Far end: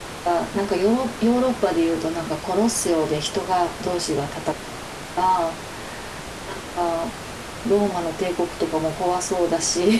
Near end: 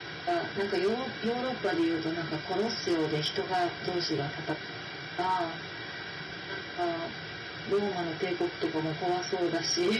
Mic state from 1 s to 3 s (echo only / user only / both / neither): echo only